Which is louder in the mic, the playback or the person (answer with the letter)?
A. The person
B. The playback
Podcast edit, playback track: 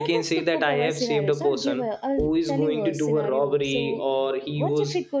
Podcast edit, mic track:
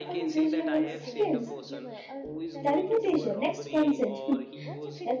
A